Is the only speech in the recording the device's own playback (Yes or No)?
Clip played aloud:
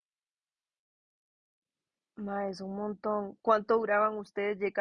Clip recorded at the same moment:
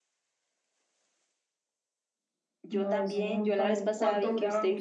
No